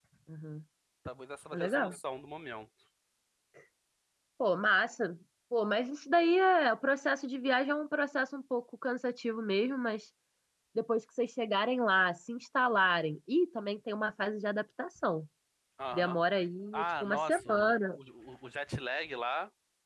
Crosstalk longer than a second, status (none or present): present